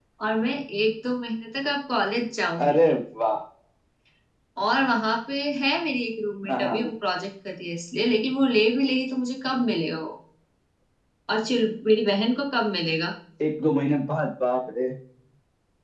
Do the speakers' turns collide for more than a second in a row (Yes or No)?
No